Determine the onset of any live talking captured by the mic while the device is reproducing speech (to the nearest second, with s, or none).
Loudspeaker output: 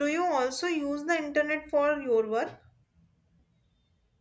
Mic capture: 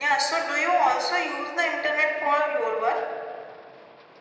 none